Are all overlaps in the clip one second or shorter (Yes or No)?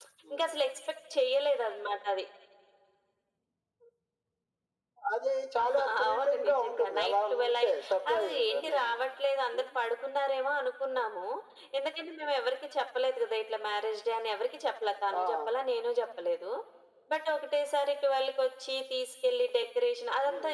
No